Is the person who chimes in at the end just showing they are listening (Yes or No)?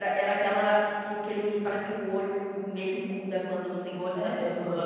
No